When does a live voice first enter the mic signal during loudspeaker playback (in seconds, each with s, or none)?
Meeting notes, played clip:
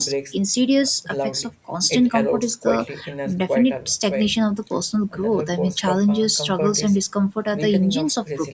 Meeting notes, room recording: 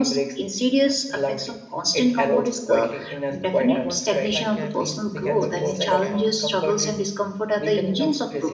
3.6 s